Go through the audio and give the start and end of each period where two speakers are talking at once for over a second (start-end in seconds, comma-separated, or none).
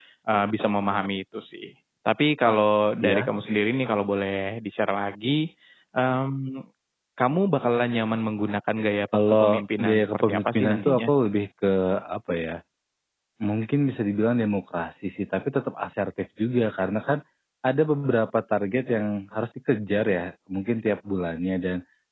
9.3-11.1